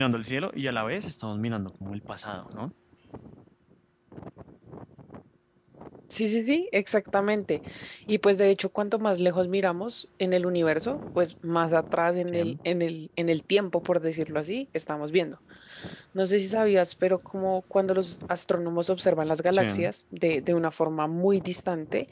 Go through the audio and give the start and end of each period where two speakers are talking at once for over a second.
none

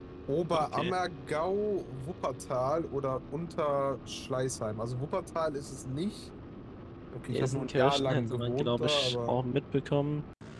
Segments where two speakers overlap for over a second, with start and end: 7.3-9.4

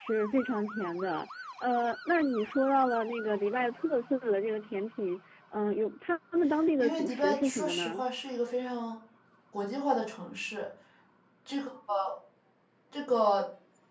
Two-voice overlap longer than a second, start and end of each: 6.8-8.0

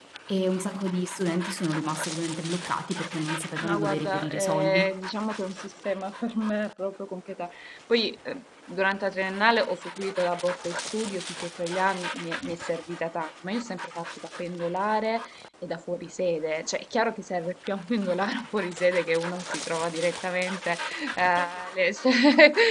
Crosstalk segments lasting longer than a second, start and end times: 3.6-5.0

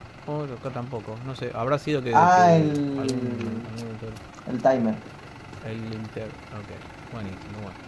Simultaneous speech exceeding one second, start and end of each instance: 2.1-3.7

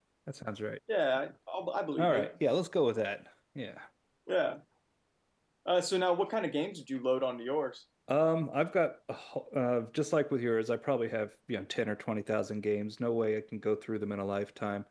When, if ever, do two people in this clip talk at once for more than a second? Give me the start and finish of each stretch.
none

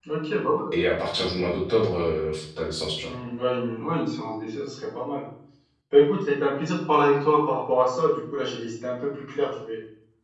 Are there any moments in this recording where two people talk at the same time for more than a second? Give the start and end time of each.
none

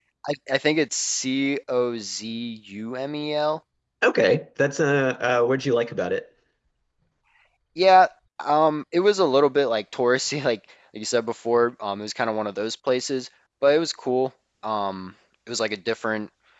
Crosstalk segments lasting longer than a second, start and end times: none

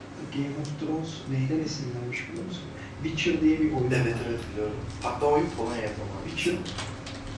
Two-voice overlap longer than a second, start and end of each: none

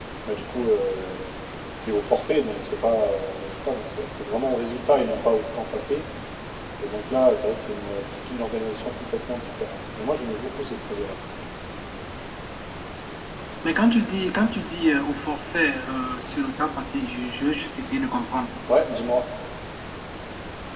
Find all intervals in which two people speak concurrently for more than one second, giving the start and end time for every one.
none

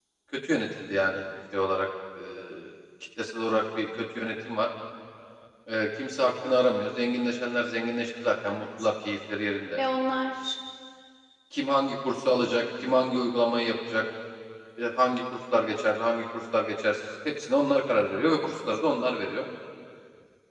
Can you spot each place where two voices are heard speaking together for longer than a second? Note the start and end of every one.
none

